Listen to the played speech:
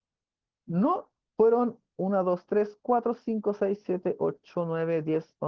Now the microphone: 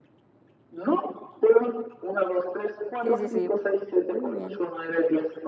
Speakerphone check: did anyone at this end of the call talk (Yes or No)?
Yes